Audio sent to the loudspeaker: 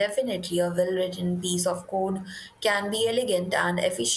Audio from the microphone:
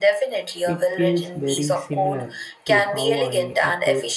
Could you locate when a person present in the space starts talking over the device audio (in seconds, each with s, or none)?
0.7 s